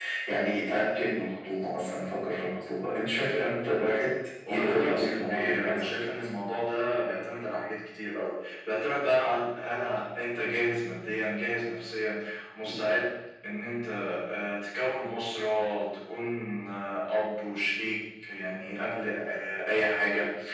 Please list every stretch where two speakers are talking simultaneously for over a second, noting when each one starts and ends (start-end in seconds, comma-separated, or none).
4.5-5.9